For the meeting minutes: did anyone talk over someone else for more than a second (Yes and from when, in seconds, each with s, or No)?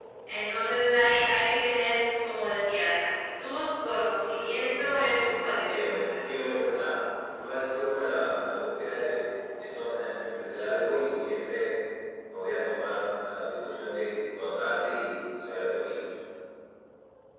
Yes, from 4.3 s